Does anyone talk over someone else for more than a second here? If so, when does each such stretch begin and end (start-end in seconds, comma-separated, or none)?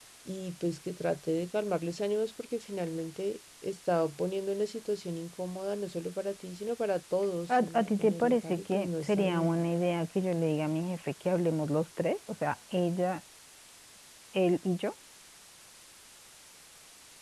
7.6-9.6